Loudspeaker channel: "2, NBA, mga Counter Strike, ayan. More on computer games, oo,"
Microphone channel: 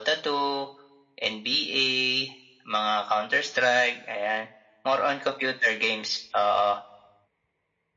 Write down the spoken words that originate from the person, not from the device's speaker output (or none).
none